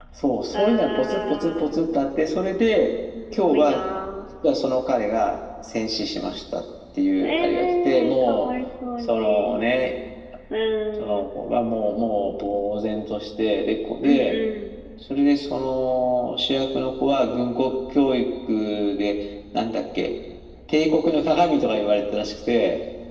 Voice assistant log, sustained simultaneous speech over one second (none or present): present